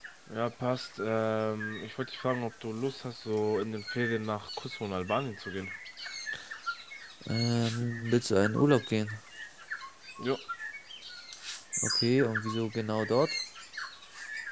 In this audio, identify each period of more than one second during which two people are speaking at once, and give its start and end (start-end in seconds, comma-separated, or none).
none